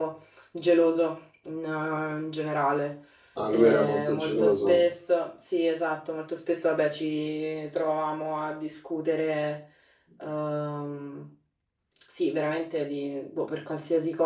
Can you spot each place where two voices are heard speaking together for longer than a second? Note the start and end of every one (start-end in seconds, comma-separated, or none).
3.5-4.8